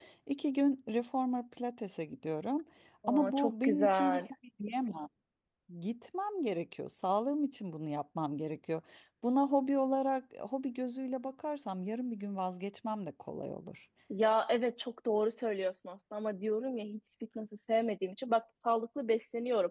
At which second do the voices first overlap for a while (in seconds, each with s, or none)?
3.1 s